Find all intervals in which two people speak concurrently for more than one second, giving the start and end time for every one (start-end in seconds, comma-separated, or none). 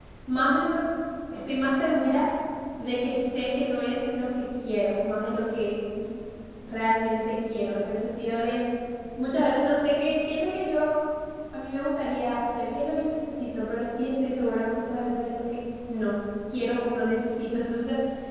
none